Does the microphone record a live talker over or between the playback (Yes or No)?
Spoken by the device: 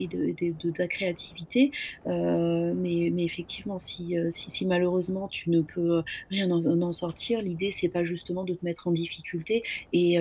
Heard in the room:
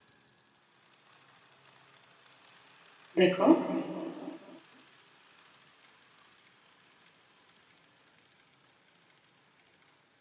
Yes